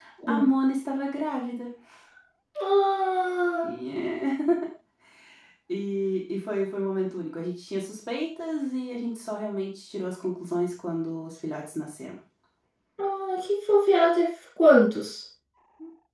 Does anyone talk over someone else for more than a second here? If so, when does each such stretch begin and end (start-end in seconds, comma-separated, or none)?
none